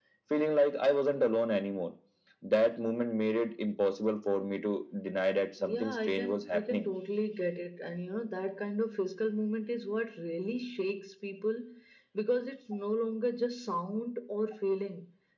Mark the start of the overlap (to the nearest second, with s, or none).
6 s